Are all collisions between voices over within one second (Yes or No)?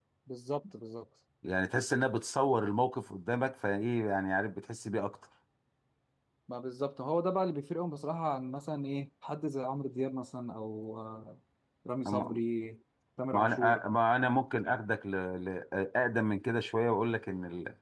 Yes